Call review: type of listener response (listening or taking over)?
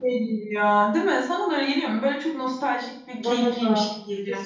taking over